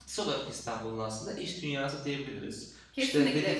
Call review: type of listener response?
taking over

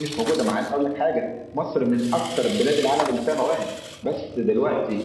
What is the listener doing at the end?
listening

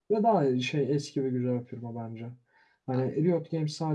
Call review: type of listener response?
listening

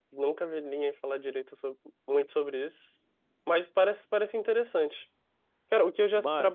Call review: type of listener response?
listening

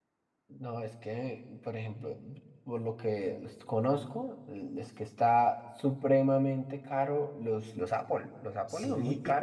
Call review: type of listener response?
listening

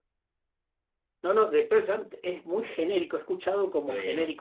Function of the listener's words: listening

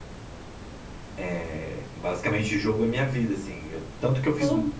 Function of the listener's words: listening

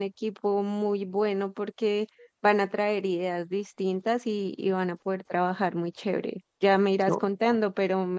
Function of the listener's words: listening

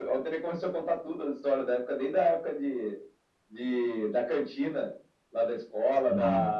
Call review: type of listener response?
listening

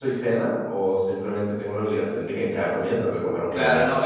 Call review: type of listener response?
taking over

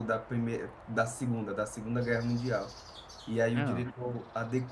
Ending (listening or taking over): listening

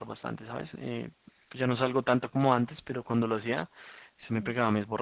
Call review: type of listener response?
listening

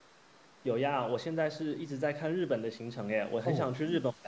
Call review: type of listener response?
taking over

